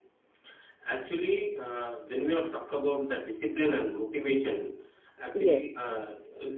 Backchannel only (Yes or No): Yes